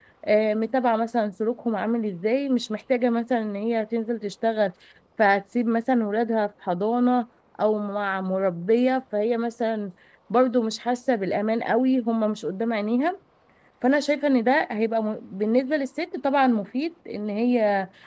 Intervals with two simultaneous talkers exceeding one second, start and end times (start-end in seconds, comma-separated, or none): none